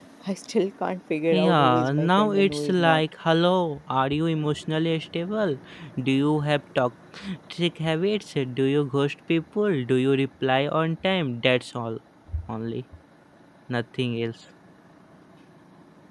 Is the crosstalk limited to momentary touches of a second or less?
No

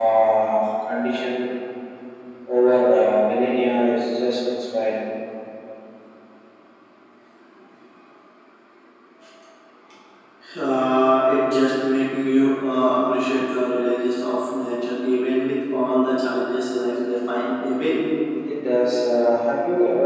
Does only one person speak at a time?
Yes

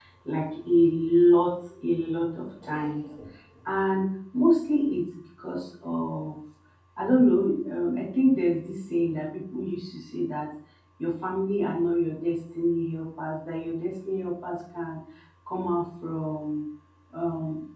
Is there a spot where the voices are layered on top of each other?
No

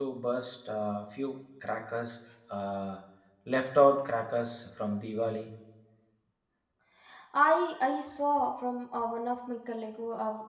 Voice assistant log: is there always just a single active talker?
Yes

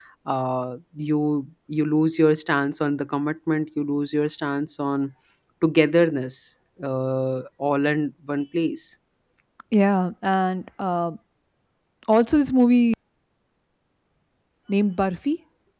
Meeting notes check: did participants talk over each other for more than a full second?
No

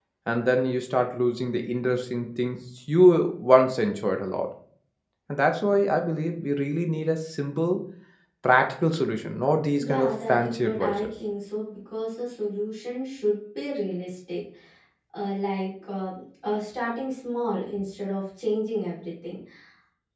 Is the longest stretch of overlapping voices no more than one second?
No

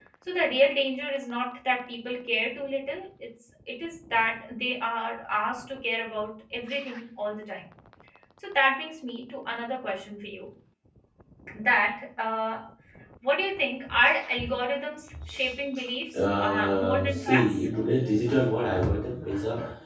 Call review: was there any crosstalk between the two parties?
Yes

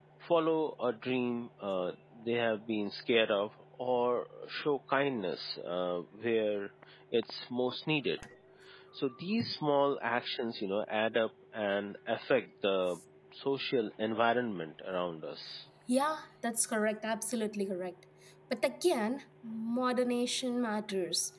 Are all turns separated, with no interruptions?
Yes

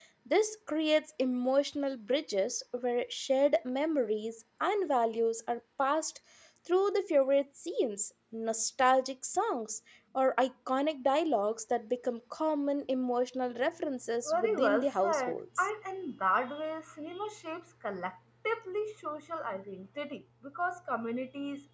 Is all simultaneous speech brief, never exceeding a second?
No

